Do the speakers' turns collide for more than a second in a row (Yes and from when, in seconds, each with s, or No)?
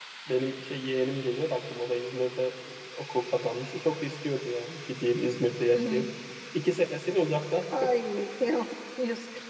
No